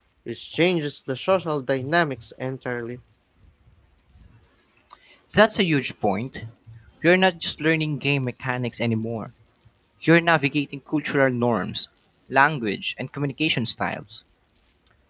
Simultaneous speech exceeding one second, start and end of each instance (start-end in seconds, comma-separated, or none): none